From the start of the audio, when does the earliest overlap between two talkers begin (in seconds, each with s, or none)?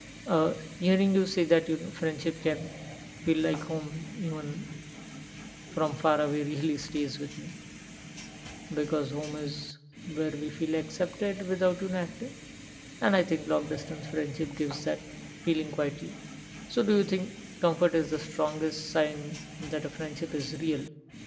none